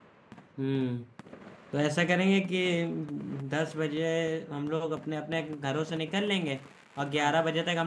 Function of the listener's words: listening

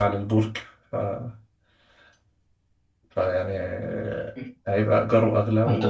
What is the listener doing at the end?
taking over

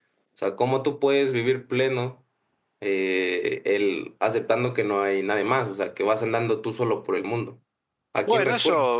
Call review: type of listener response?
taking over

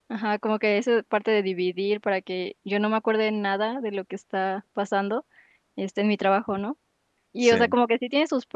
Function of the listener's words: listening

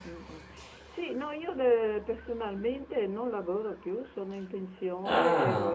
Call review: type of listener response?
listening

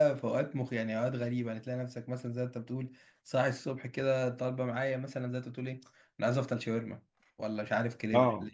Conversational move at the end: listening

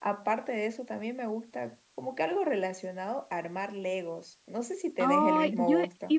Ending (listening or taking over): taking over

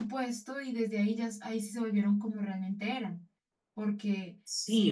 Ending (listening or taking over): taking over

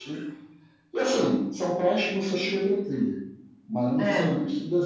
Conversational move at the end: listening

